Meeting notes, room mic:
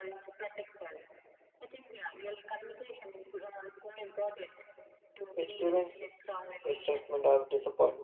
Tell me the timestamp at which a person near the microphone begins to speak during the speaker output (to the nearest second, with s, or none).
5 s